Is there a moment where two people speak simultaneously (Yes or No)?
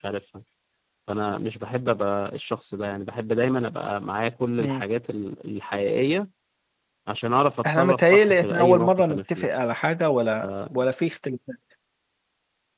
Yes